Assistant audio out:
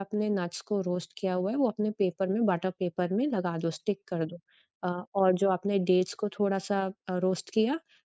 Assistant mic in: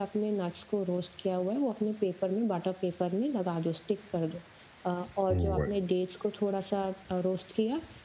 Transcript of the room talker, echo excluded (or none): राइट।